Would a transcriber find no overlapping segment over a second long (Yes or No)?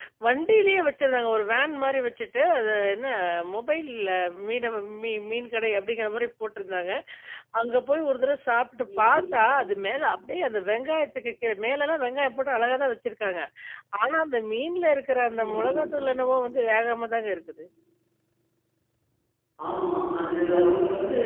Yes